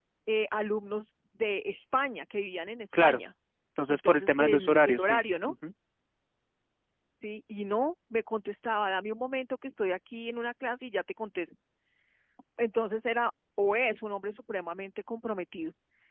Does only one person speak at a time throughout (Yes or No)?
No